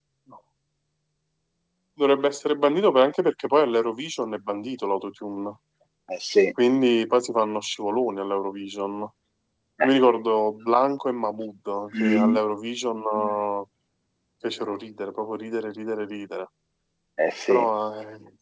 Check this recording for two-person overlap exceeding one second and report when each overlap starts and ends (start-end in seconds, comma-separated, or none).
none